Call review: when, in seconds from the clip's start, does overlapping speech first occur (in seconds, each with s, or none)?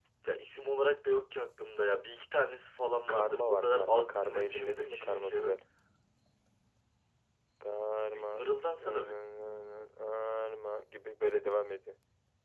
3.0 s